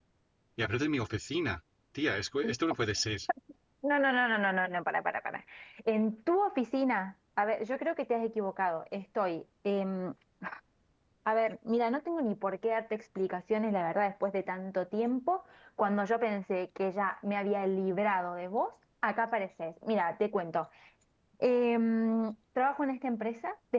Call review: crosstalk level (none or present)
none